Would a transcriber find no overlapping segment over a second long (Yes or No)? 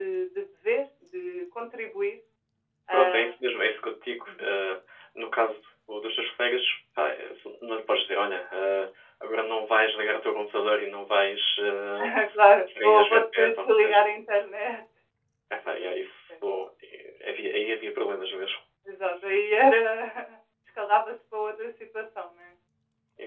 No